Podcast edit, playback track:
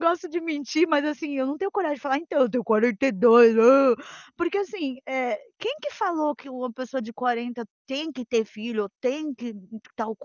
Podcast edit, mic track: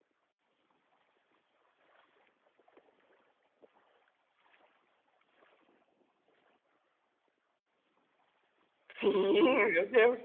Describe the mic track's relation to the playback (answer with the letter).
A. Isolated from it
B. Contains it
A